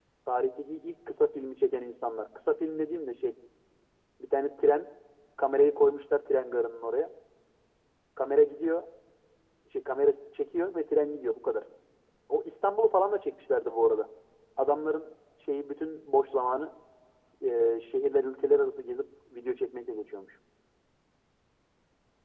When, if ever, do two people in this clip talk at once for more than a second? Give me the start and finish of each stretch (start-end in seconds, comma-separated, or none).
none